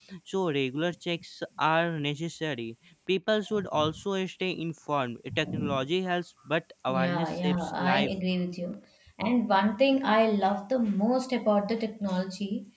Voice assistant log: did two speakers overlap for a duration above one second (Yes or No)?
Yes